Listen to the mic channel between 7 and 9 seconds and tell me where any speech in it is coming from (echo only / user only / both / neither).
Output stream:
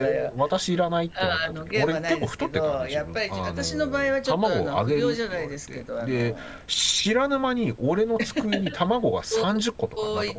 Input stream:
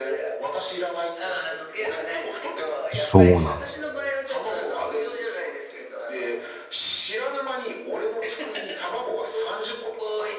echo only